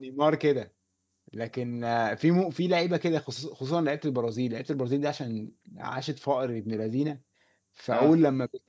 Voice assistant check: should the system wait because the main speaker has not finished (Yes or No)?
Yes